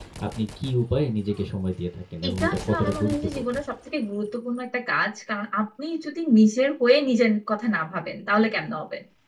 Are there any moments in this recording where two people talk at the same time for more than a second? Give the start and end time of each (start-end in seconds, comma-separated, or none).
2.3-3.5